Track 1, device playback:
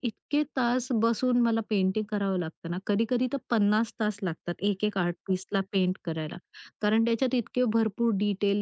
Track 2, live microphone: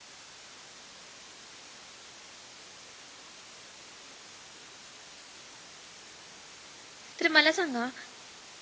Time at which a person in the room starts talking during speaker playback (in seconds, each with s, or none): 7.2 s